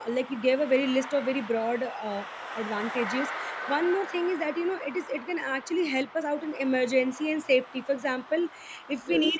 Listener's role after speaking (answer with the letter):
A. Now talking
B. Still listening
B